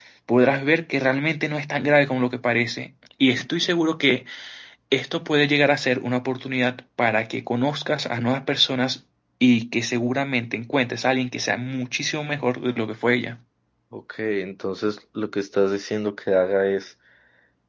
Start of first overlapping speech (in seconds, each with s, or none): none